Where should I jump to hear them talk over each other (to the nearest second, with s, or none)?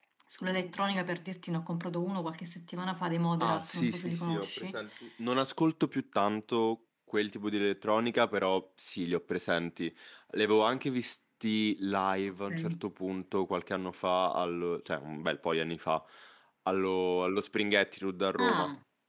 3 s